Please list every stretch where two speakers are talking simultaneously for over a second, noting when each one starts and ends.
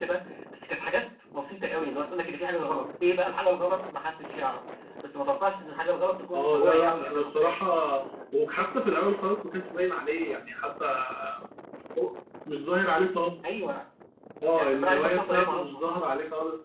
6.3-7.6, 14.6-15.8

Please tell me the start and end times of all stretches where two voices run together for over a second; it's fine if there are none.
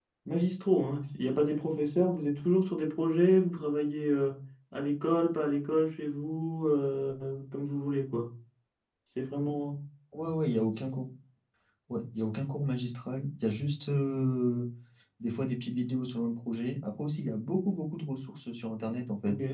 none

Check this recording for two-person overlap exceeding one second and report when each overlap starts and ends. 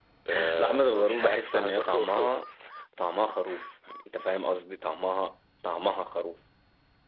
0.6-2.4

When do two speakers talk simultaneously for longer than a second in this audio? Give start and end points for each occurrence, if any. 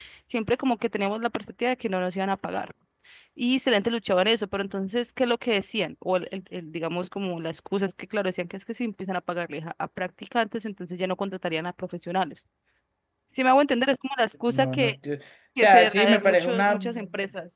15.6-16.8

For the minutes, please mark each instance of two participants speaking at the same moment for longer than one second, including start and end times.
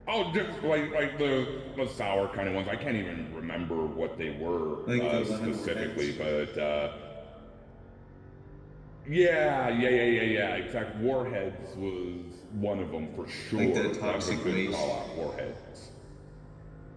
5.0-6.2, 13.6-14.9

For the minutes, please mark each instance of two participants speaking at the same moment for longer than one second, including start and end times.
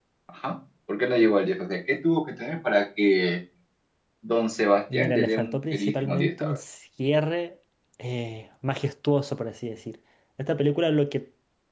4.9-6.6

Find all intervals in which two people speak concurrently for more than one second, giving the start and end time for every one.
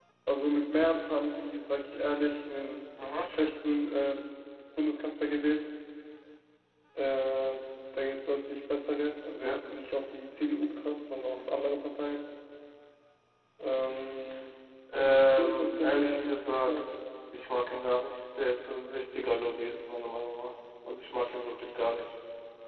15.0-16.9

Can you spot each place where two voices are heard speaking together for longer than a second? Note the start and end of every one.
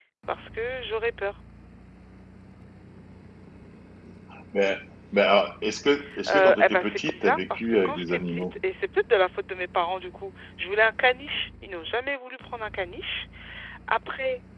6.3-8.6

